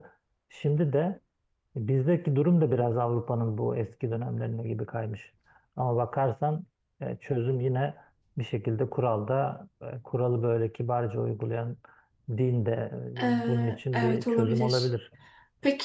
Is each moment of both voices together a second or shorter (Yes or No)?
No